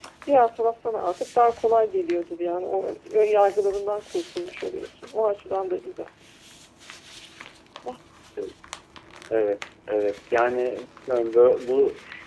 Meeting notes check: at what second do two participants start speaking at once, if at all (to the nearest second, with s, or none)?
none